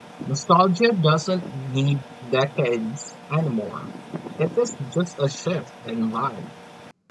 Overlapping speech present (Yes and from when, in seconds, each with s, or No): No